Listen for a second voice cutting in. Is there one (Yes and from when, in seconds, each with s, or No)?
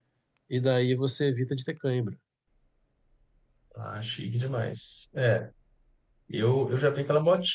No